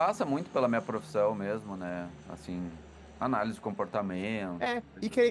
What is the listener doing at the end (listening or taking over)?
taking over